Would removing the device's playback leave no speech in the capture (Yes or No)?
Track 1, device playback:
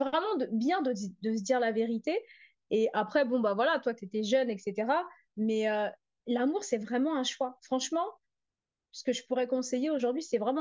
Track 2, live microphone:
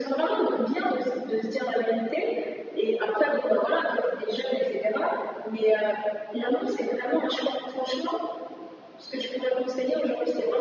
Yes